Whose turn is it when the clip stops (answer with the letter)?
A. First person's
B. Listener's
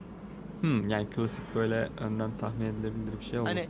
B